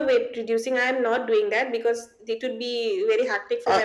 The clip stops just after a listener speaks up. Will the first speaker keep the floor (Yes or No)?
No